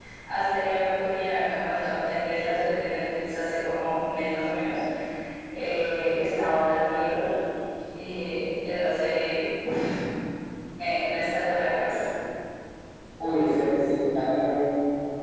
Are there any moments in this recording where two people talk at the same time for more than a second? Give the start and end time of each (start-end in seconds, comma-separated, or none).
none